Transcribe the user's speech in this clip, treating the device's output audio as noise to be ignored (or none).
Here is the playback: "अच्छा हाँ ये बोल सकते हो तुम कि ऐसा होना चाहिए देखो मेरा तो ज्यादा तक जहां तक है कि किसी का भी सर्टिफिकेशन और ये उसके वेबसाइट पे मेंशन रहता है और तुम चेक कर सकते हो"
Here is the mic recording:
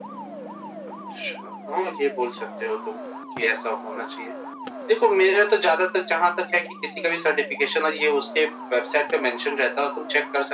none